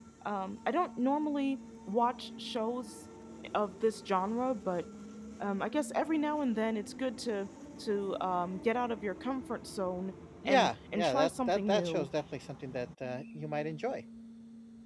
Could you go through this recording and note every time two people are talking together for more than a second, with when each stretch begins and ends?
10.4-12.1

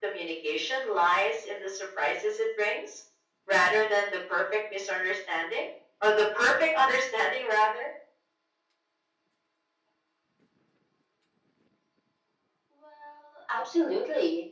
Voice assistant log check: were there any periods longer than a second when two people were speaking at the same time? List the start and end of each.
none

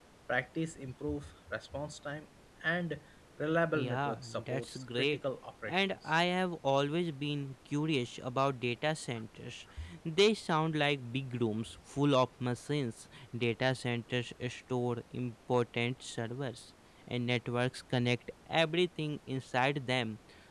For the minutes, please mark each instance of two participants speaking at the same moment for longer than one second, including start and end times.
3.7-5.2

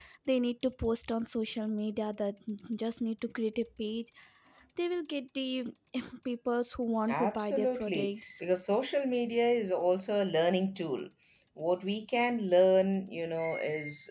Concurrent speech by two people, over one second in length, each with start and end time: 7.1-8.3

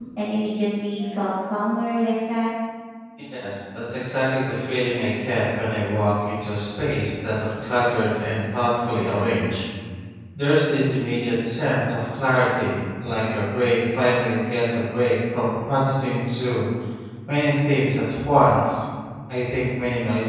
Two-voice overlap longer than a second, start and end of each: none

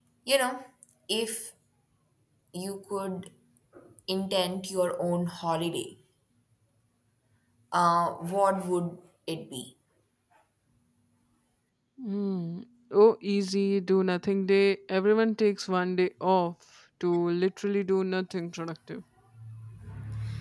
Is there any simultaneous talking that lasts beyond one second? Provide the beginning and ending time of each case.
none

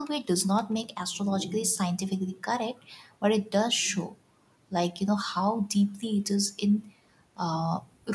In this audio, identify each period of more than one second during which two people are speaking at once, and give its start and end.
none

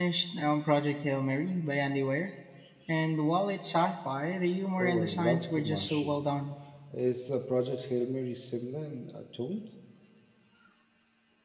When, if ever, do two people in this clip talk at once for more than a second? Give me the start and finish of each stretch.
4.8-6.2

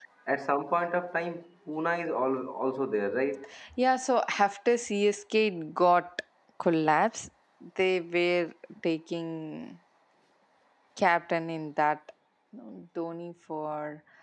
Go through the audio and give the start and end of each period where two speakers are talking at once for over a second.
none

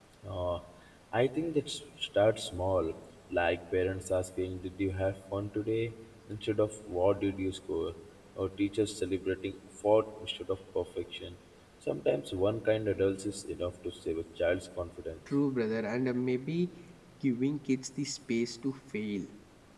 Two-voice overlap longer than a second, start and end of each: none

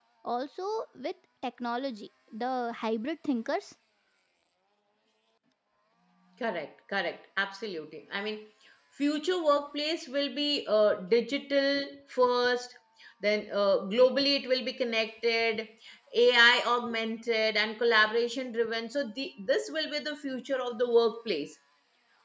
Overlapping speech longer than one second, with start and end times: none

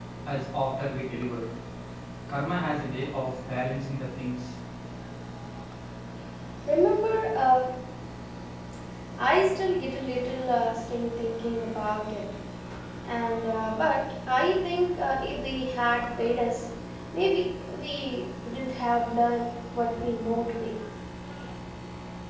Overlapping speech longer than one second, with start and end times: none

